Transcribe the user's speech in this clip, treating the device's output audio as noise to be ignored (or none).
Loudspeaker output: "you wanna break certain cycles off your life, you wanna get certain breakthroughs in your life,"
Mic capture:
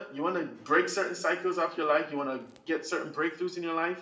none